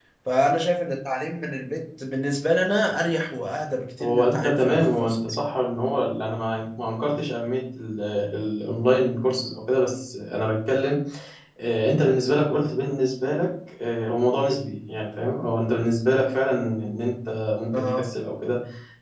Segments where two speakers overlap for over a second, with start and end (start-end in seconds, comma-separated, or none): 4.0-5.4